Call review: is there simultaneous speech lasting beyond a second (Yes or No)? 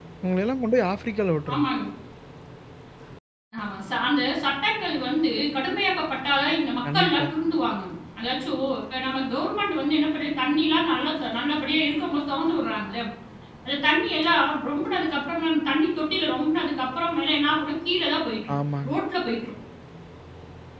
No